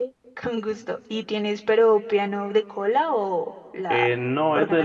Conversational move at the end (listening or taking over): taking over